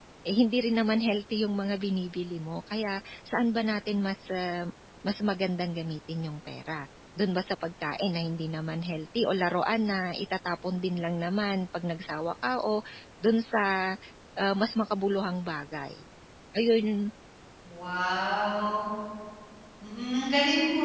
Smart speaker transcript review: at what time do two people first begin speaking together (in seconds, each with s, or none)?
none